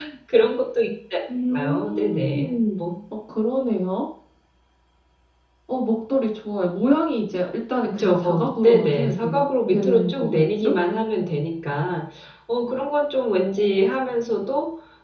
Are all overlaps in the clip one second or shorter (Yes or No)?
No